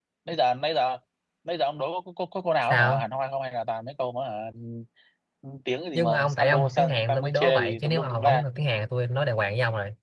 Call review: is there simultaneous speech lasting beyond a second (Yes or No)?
Yes